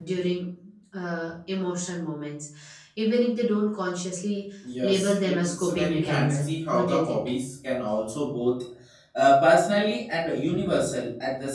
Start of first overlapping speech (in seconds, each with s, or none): 4.6 s